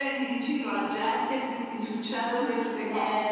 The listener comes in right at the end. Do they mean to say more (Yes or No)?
Yes